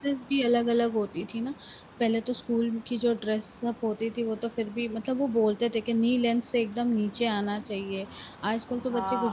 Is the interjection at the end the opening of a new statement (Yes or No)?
Yes